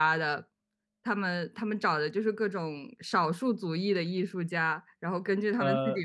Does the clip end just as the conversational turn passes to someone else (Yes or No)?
No